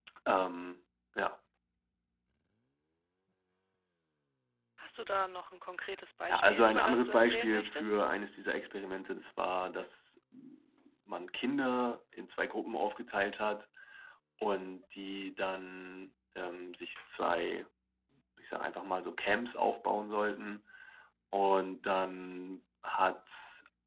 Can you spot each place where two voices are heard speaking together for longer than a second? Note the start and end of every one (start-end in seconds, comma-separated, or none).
6.3-8.0